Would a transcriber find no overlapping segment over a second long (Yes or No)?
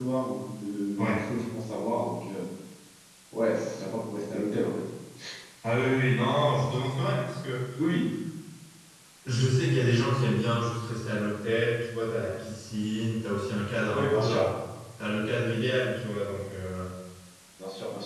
Yes